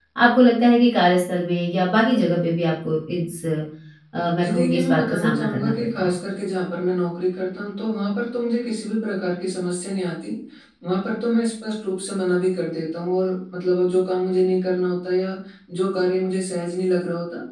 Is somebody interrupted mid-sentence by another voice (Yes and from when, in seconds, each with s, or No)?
Yes, from 4.4 s